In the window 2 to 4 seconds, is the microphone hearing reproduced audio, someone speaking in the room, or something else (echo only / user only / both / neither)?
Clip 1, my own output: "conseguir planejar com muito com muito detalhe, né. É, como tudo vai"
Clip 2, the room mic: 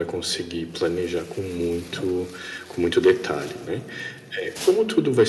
echo only